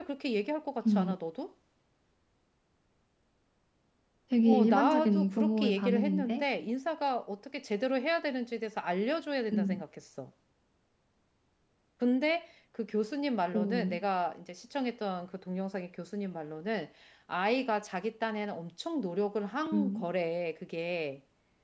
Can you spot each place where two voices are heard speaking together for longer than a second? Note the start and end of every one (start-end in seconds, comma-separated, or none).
4.4-6.4